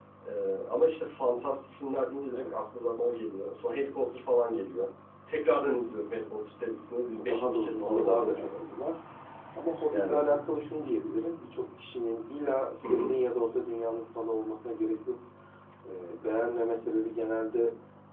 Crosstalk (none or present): present